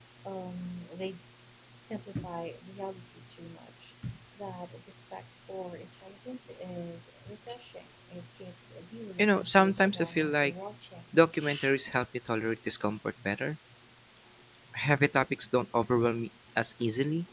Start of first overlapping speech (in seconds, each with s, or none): 9.2 s